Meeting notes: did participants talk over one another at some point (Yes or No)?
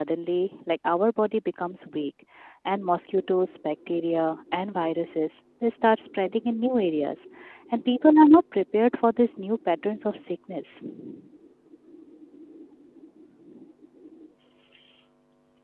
No